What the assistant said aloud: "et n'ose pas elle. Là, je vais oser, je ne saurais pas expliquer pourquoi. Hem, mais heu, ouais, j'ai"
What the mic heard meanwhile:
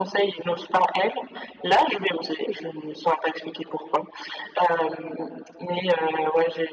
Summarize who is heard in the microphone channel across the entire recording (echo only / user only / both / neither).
echo only